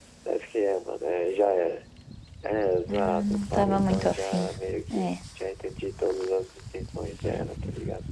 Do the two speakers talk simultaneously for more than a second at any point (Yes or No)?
Yes